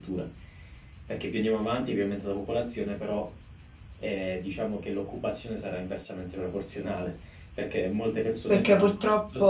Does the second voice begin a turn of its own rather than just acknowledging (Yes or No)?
Yes